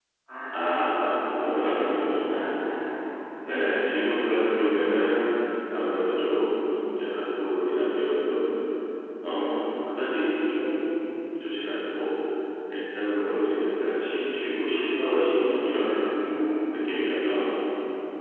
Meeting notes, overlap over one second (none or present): present